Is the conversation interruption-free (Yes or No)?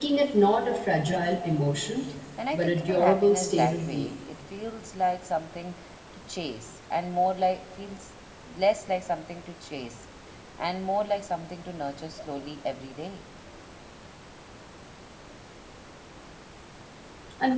No